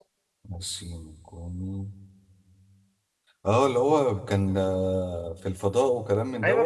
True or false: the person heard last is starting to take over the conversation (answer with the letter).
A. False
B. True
B